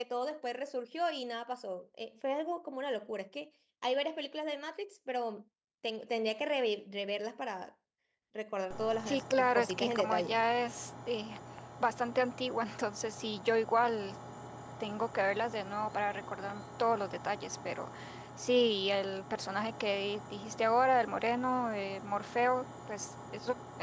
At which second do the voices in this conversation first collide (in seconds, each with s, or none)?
9.1 s